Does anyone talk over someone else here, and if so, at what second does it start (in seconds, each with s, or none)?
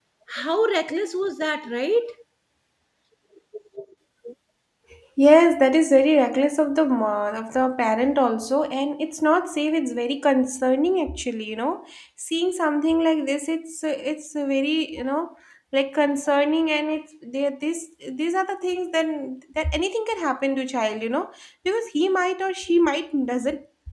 none